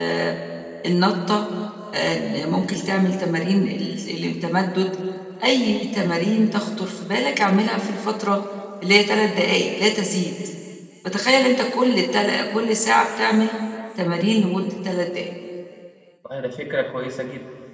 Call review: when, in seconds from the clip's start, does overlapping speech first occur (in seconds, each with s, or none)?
none